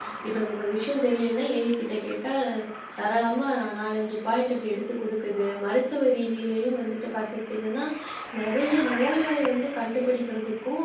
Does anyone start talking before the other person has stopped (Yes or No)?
No